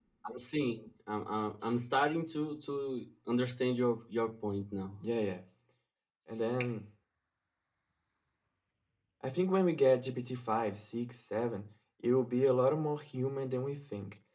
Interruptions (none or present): none